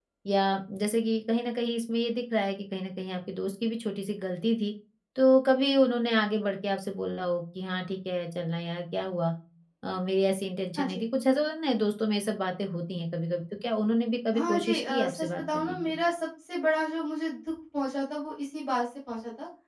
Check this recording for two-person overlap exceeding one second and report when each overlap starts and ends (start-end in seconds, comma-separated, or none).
14.3-15.9